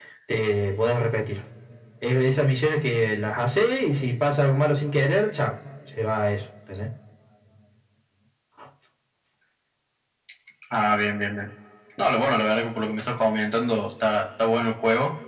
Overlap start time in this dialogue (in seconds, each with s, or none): none